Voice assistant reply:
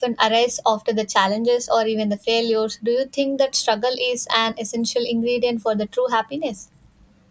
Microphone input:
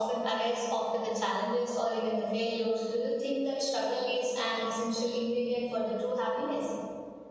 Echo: present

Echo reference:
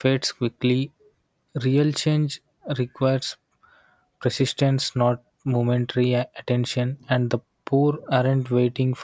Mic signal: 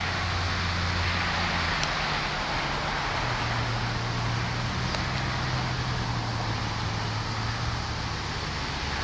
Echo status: none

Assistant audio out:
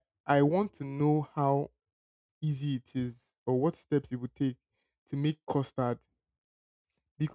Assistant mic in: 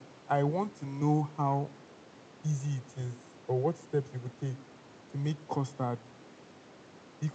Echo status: present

